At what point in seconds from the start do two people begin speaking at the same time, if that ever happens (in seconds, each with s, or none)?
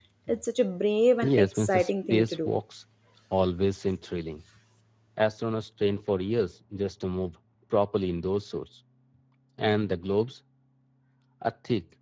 1.2 s